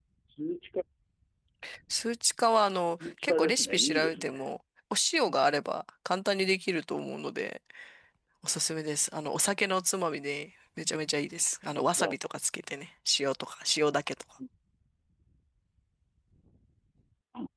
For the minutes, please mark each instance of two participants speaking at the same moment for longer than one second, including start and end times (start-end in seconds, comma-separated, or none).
3.0-4.5